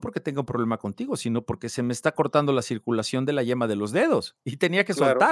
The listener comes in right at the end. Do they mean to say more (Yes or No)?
Yes